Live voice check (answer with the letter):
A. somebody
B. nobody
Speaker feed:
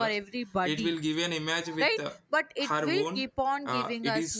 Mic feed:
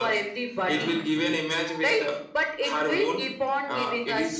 A